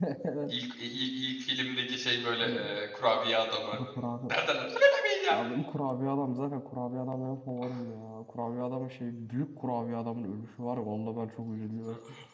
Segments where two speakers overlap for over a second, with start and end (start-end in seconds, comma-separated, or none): none